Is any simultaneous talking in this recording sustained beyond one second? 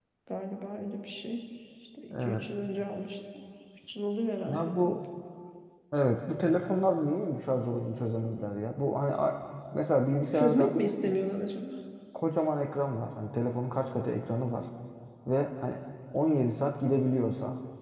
No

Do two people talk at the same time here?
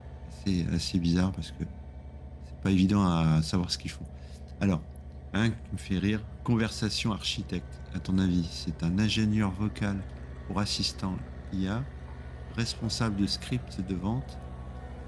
No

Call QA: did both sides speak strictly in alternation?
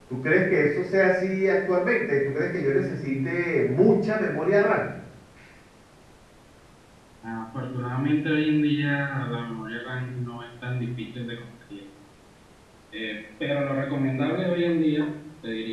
Yes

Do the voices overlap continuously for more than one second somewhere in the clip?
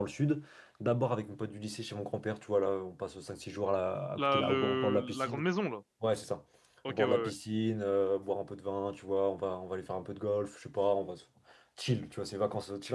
Yes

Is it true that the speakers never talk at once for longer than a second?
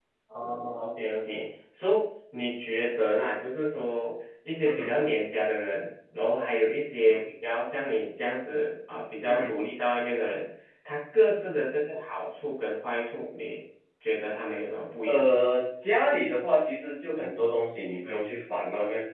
Yes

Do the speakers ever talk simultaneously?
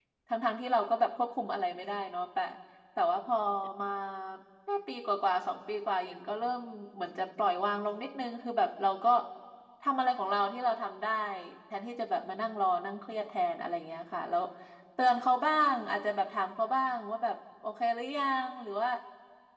No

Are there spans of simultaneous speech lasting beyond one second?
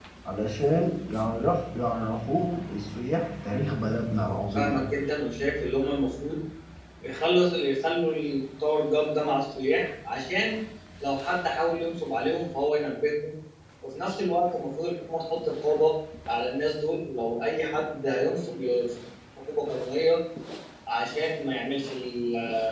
No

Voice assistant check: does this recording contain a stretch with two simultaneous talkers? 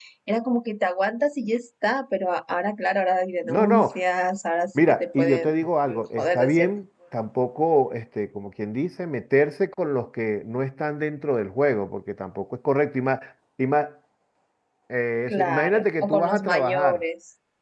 Yes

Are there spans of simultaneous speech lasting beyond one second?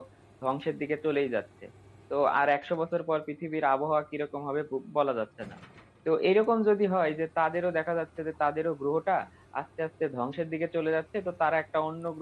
No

